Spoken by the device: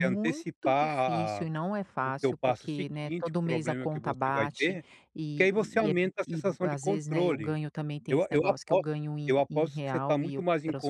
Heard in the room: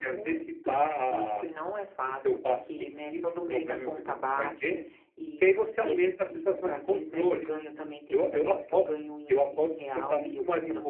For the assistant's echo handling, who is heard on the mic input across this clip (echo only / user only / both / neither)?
echo only